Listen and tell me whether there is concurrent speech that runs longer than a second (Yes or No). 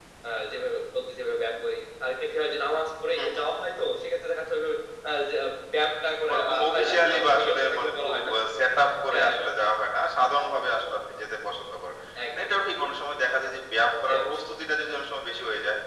Yes